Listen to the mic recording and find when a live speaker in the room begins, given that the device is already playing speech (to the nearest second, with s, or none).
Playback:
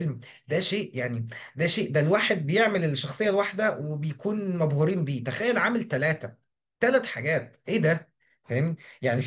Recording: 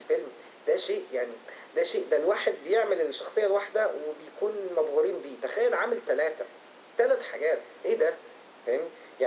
none